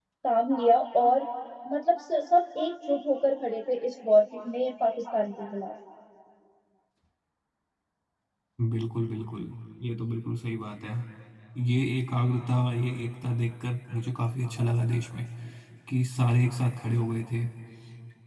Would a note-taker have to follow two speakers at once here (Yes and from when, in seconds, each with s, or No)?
No